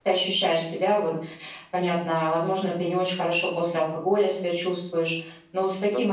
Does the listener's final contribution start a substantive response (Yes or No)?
No